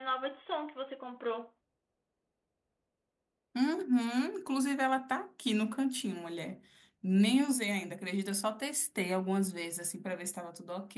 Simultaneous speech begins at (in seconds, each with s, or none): none